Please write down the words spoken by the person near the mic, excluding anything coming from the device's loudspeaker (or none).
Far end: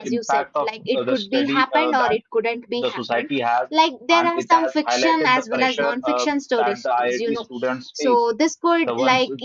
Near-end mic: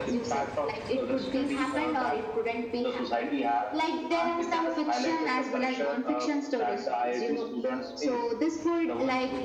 none